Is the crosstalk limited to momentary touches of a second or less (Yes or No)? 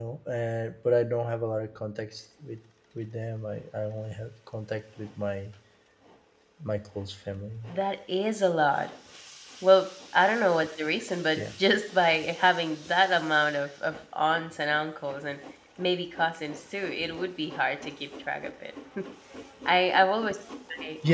Yes